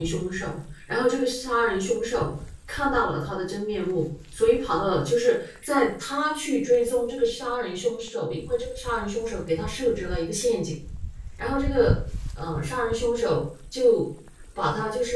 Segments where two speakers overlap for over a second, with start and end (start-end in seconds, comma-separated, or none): none